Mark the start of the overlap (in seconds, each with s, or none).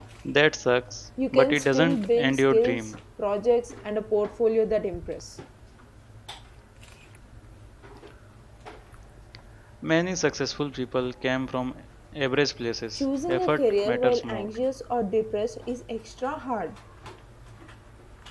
1.3 s